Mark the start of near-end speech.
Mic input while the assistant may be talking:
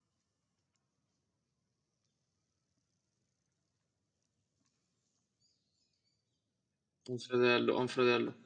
7.1 s

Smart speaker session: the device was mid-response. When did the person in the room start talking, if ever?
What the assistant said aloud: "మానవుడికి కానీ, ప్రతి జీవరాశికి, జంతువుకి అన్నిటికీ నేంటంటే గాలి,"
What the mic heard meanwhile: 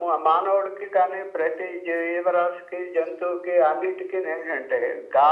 none

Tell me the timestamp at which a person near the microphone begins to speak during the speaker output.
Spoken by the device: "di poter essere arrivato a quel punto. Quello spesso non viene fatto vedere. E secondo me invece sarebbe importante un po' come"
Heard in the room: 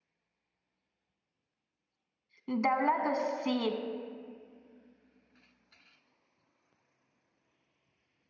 2.4 s

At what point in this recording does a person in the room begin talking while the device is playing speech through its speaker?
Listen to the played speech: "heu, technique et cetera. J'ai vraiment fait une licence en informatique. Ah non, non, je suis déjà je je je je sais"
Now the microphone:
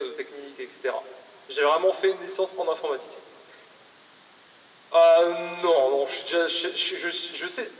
none

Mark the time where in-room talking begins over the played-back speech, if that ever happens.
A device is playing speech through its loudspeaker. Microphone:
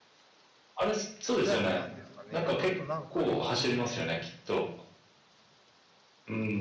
1.3 s

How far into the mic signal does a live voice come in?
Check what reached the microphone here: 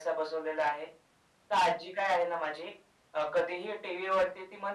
none

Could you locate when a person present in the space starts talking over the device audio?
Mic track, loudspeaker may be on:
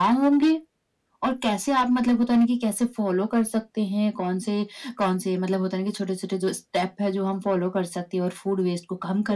none

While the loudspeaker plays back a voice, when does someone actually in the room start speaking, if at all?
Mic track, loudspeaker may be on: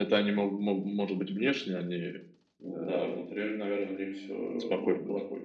2.6 s

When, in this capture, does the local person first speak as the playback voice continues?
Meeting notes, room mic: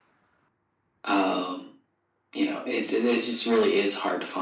none

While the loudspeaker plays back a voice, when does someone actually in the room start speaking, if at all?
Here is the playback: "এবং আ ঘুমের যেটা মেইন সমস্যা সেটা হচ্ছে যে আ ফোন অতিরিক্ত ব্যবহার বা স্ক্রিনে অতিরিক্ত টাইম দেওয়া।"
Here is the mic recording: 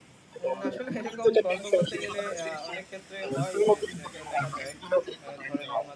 0.4 s

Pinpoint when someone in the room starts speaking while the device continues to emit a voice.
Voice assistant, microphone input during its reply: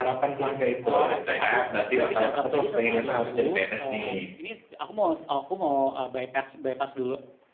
0.9 s

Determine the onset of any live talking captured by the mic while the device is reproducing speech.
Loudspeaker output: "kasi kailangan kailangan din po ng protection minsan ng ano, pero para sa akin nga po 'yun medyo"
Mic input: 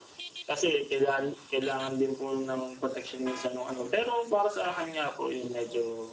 none

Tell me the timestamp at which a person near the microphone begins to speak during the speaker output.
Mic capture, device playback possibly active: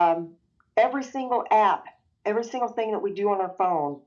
none

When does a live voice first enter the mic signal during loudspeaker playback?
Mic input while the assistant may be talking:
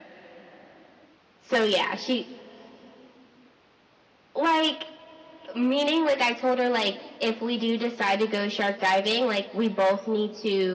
none

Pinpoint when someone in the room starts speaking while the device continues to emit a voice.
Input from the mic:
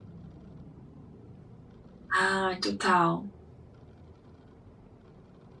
2.2 s

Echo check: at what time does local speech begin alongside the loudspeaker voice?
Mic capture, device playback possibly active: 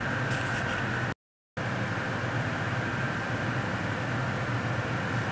none

